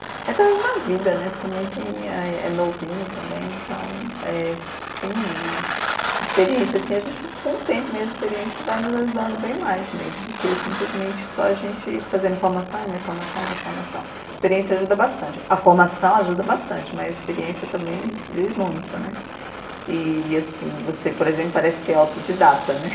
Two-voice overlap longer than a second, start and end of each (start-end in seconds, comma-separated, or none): none